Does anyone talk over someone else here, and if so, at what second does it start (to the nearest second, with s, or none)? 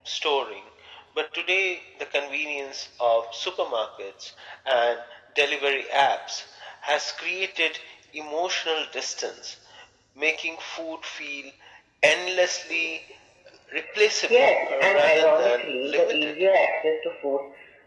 14 s